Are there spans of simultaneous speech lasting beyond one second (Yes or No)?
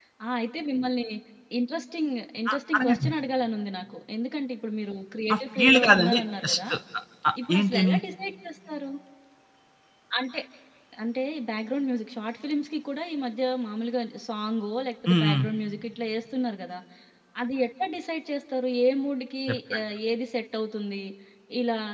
Yes